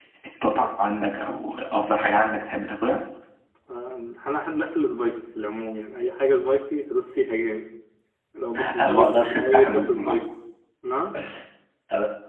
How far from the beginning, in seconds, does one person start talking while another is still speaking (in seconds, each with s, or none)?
8.6 s